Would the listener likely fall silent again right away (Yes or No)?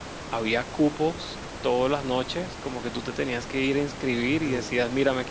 Yes